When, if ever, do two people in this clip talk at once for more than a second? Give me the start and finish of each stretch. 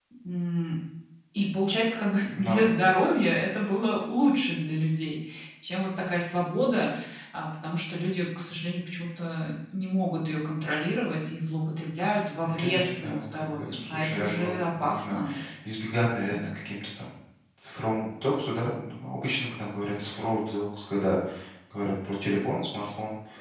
12.4-15.2

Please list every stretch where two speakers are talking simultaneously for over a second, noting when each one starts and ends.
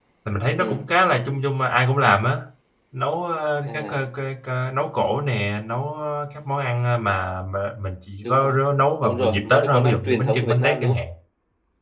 9.0-11.0

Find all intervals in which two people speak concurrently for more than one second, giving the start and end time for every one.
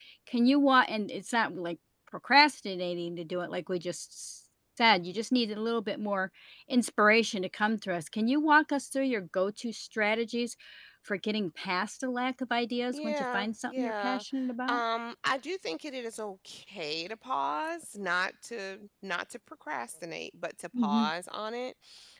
12.9-14.2

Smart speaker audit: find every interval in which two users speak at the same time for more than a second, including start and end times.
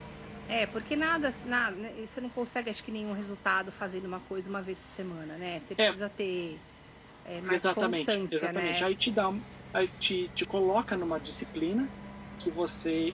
7.5-8.9

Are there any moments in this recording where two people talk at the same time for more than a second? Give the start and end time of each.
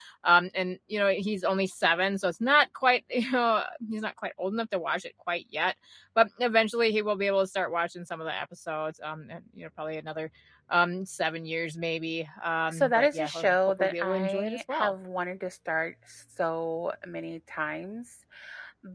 12.7-14.9

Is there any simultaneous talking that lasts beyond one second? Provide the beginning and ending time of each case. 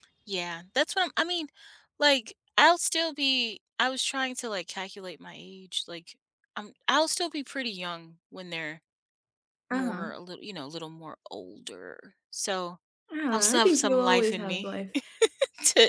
13.3-14.7

